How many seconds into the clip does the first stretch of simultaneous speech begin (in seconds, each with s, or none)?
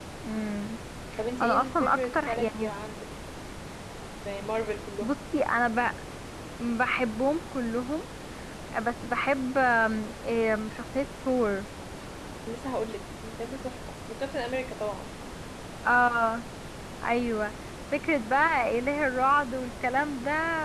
1.4 s